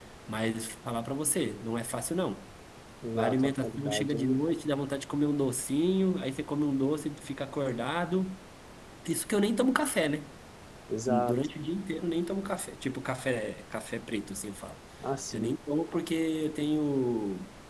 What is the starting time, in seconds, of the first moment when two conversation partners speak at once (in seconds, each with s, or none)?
3.1 s